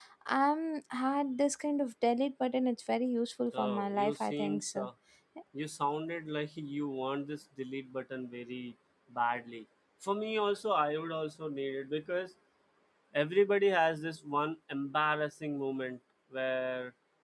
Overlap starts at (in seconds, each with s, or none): 3.5 s